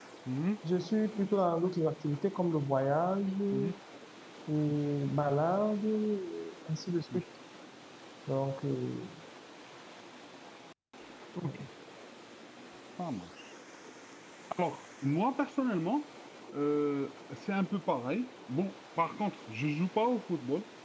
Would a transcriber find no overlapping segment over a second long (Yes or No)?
Yes